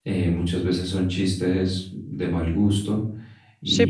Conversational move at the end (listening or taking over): taking over